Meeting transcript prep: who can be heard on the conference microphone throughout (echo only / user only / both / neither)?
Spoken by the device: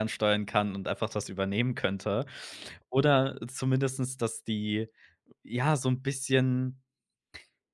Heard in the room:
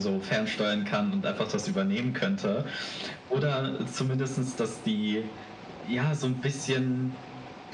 echo only